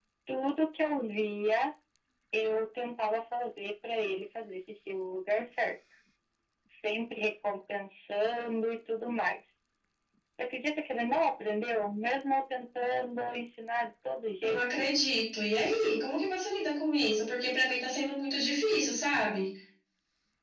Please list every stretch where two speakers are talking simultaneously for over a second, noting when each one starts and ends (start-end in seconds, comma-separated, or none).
none